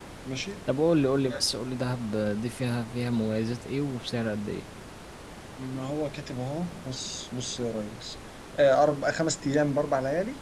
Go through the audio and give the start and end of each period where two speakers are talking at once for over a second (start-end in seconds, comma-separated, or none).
none